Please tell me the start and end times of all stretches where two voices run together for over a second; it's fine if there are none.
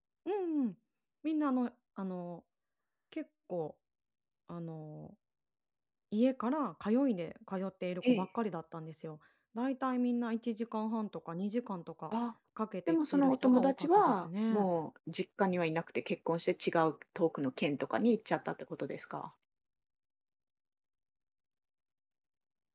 12.9-14.7

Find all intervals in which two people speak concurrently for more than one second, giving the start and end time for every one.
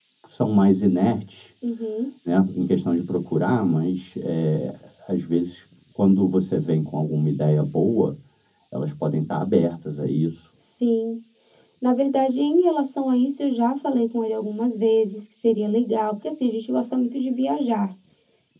none

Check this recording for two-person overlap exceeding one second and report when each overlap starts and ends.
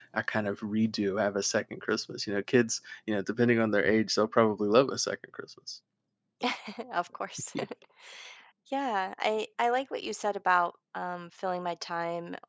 none

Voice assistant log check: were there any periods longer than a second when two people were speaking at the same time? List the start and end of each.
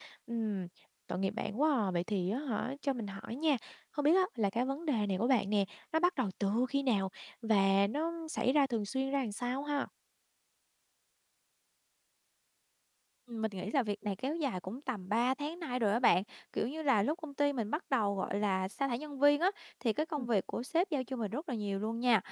none

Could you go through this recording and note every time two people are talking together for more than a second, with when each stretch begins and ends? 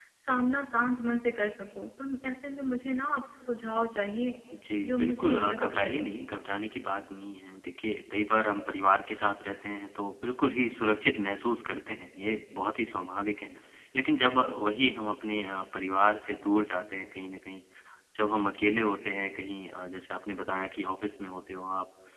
4.8-6.0

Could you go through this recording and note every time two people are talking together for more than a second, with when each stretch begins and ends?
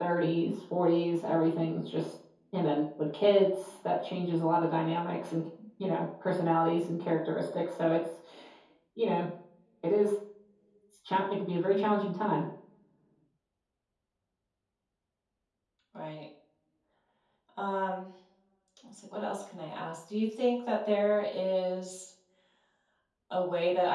none

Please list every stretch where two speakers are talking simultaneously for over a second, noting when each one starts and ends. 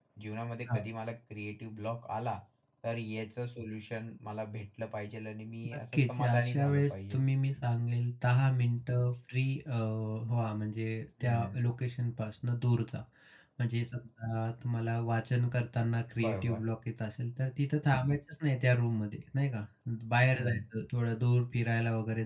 5.7-7.3

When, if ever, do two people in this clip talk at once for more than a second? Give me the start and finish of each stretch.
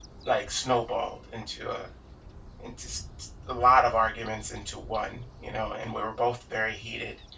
none

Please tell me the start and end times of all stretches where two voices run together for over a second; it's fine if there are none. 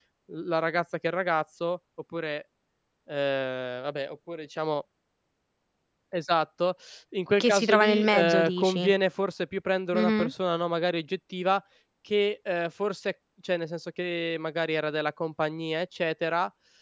7.4-8.9

